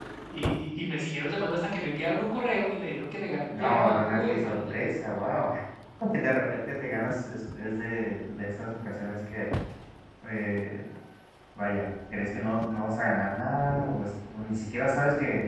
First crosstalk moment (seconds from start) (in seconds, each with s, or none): 3.5 s